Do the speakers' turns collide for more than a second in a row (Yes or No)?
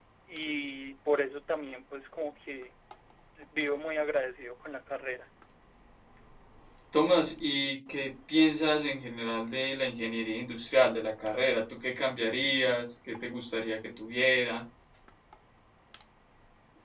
No